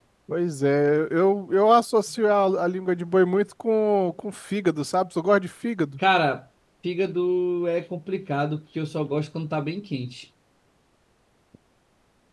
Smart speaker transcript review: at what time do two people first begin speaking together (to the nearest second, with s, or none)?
none